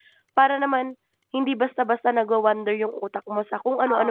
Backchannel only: No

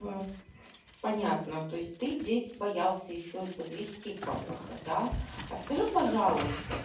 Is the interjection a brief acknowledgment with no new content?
Yes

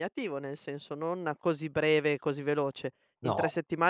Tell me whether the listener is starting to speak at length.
No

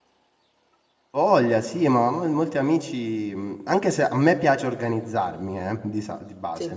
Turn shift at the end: No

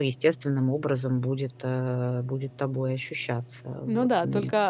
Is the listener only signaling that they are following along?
No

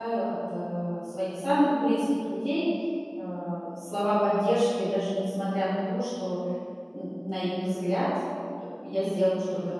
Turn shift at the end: Yes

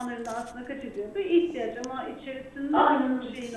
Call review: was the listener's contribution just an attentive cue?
Yes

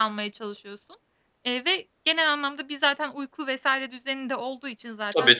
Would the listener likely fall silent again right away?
No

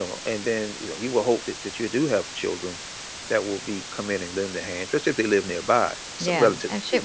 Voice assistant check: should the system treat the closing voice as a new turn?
Yes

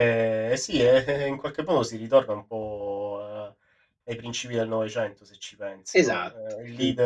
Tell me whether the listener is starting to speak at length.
No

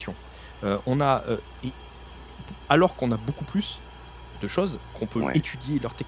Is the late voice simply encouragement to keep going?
Yes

